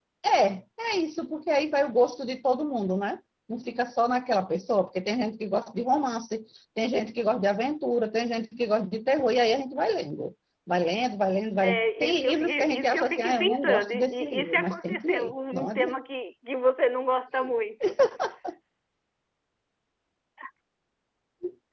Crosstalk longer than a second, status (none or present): present